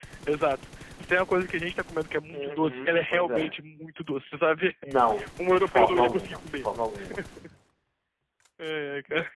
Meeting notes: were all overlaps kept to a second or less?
No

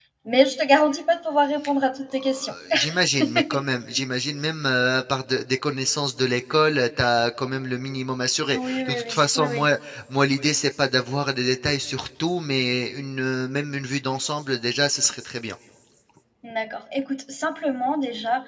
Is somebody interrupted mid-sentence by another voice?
Yes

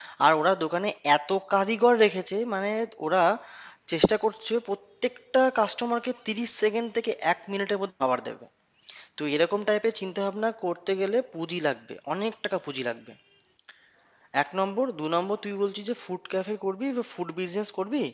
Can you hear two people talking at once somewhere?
No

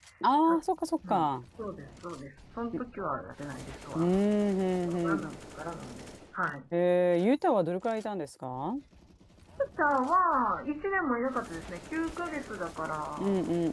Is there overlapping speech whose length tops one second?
No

